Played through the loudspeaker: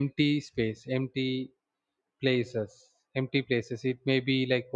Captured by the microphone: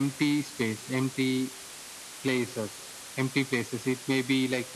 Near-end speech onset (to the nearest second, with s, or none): none